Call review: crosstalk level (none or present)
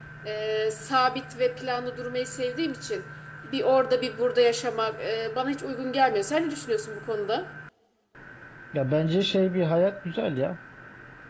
none